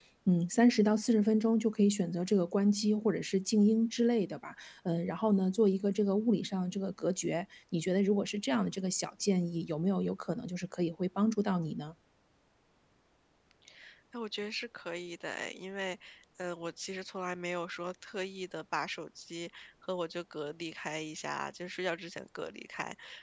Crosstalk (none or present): none